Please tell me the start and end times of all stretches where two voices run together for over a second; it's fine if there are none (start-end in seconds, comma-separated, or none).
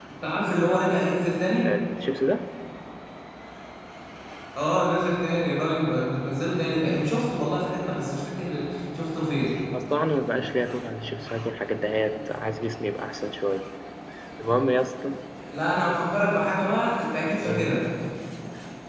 none